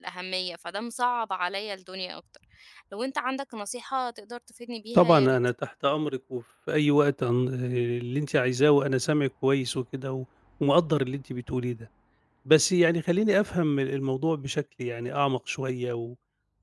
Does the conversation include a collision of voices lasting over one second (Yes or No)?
No